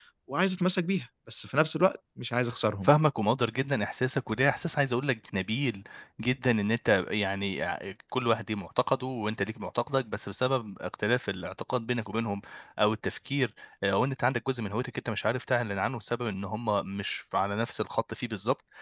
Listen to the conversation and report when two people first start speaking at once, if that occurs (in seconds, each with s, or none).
none